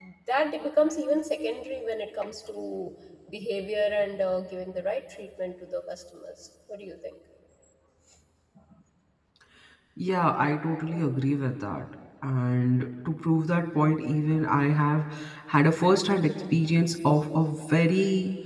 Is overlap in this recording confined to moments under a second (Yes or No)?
Yes